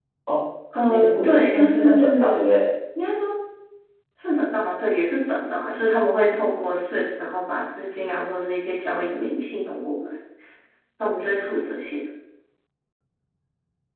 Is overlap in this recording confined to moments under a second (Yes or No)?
No